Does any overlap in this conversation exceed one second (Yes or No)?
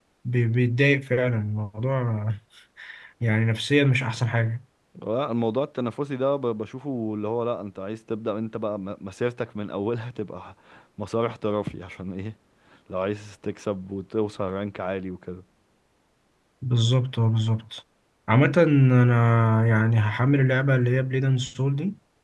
No